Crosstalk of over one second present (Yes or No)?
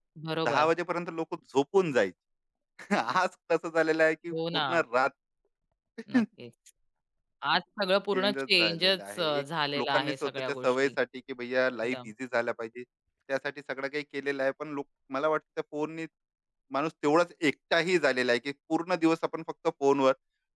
Yes